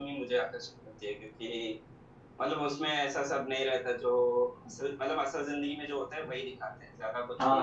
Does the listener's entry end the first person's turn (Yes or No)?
Yes